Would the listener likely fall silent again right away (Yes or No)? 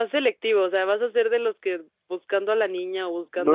No